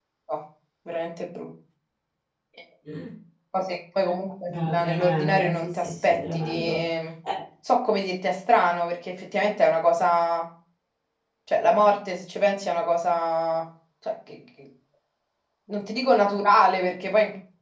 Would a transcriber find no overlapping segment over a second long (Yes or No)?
No